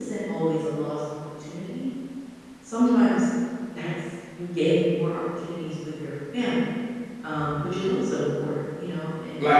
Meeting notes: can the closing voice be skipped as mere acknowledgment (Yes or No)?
No